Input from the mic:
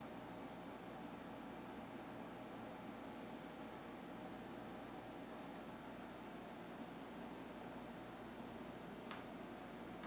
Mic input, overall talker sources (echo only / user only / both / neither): neither